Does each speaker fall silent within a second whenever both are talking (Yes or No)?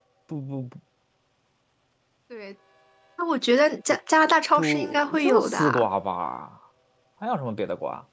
No